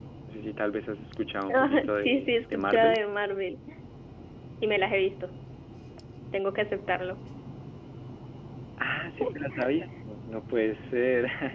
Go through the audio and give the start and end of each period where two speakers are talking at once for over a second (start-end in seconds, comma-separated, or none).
1.5-3.0